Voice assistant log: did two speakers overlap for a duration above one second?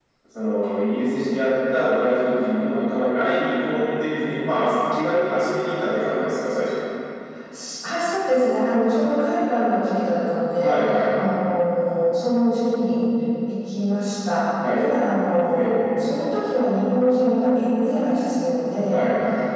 No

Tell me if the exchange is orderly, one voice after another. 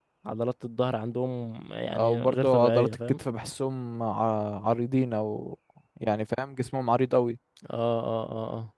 No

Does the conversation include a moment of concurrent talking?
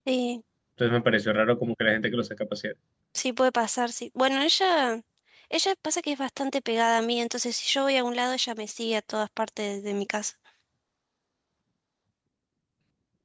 No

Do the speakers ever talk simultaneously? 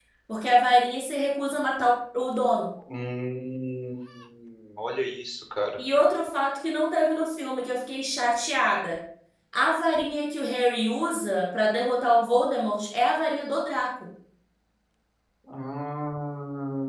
No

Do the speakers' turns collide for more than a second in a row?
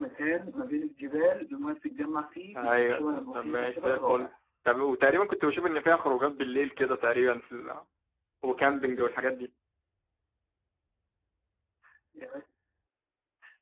Yes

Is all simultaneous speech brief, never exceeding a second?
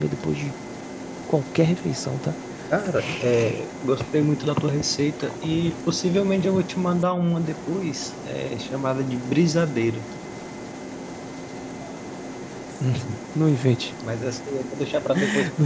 Yes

